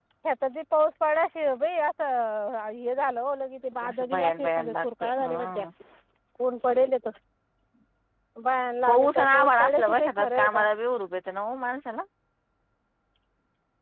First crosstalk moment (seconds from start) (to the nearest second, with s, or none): 4 s